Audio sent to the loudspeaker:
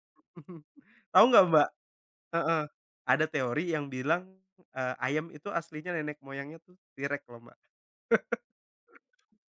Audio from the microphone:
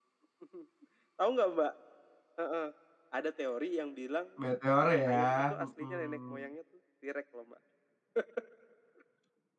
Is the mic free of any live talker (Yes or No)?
No